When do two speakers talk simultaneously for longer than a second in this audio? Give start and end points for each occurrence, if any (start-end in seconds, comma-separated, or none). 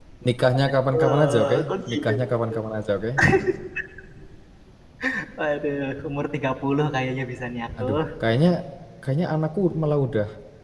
0.9-2.1